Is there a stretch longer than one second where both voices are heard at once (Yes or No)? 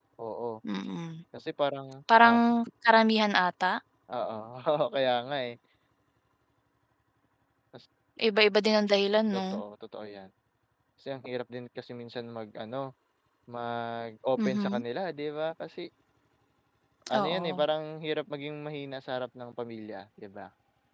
No